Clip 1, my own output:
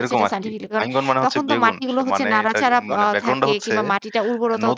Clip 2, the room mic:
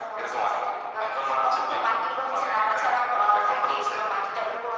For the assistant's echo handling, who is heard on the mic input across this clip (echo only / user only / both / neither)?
echo only